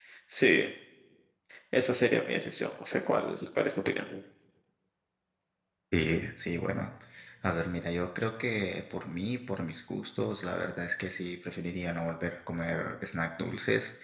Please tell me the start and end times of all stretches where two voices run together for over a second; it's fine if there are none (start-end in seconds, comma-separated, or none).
none